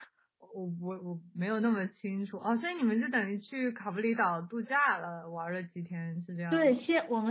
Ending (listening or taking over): taking over